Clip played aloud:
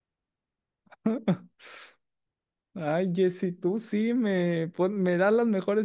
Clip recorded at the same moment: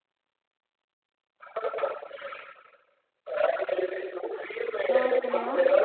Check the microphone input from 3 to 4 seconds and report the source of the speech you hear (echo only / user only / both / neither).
echo only